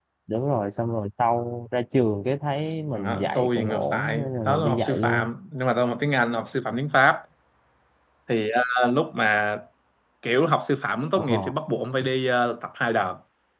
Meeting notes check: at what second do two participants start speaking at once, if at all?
2.9 s

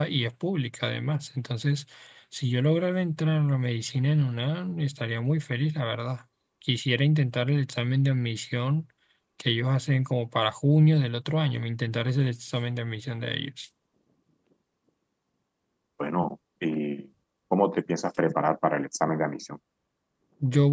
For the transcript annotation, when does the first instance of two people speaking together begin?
none

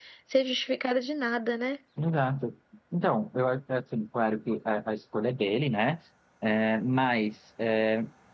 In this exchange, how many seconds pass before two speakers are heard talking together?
none

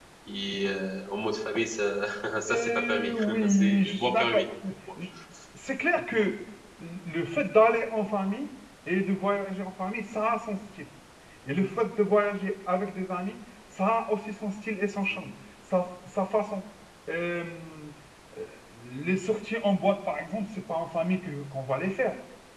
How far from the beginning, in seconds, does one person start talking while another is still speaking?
2.5 s

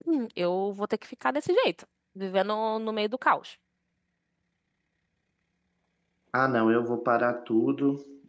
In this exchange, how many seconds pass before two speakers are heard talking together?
none

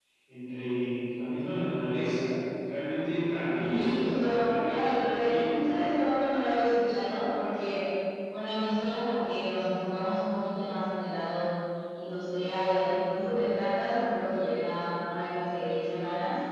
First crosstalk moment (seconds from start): 3.7 s

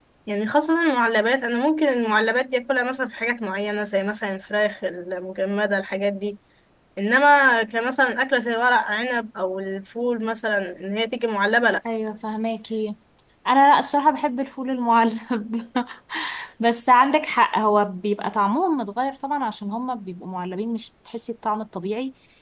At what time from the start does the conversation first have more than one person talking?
none

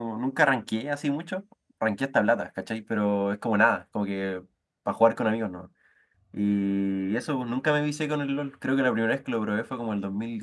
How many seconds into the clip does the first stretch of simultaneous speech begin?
none

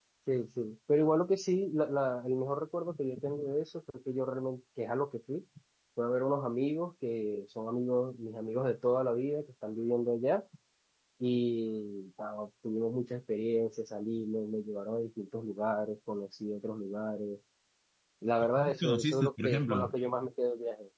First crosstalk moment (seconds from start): 18.4 s

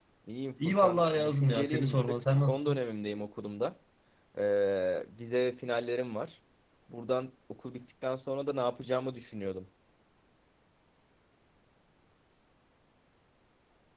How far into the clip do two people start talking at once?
0.6 s

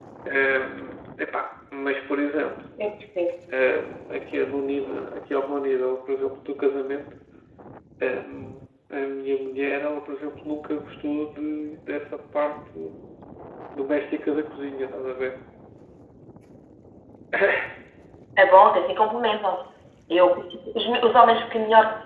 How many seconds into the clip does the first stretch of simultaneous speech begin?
none

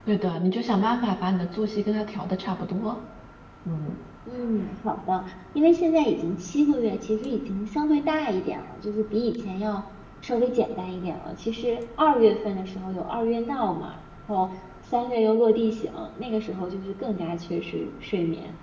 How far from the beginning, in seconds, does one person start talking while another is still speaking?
none

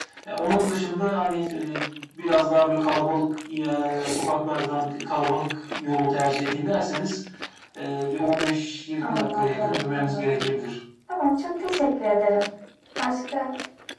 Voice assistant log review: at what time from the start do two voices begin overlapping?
9.0 s

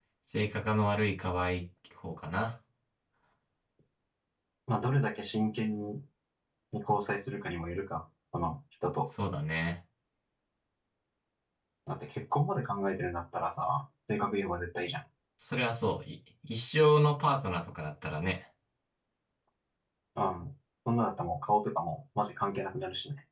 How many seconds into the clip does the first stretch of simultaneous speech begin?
none

